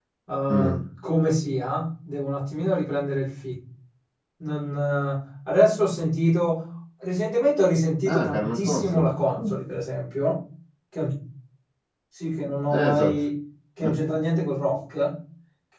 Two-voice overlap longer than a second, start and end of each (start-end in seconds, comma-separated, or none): 8.1-9.5